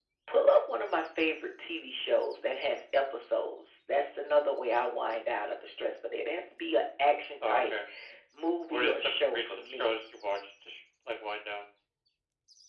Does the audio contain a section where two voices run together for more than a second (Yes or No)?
Yes